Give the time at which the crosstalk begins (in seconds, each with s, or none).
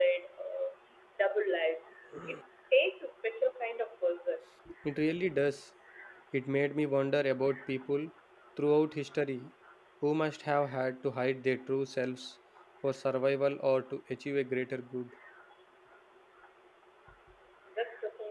none